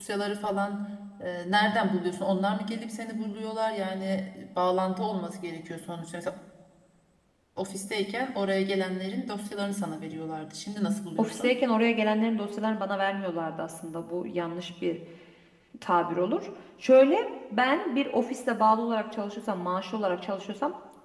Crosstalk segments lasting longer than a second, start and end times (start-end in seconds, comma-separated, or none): none